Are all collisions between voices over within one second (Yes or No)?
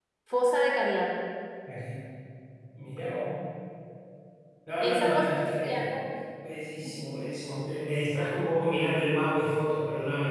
No